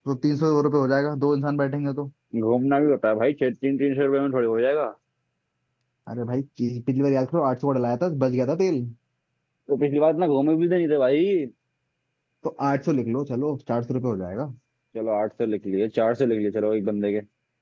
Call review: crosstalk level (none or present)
none